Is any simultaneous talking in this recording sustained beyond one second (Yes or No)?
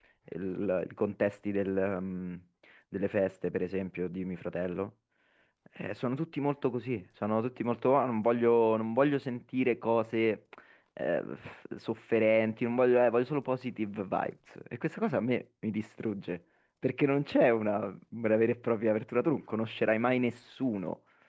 No